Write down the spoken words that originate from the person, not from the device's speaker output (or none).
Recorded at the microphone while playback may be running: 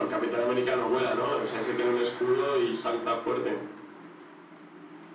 none